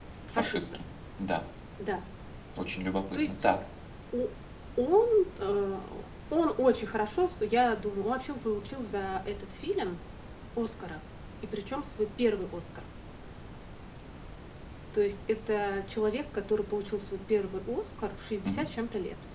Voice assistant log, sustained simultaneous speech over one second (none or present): none